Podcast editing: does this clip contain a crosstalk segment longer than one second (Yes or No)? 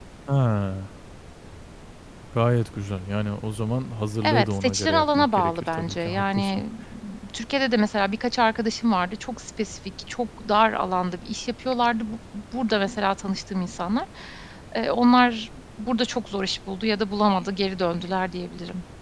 Yes